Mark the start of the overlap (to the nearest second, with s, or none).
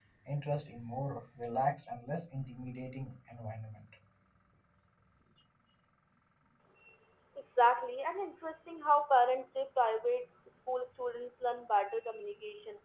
none